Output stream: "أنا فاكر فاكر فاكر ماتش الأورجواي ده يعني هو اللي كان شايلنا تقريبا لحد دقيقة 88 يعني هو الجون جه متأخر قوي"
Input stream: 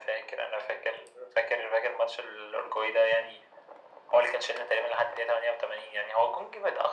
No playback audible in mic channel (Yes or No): No